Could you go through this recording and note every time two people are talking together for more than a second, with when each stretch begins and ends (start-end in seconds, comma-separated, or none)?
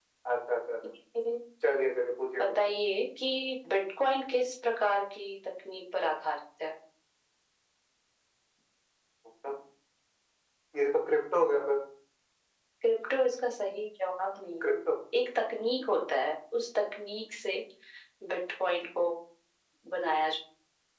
none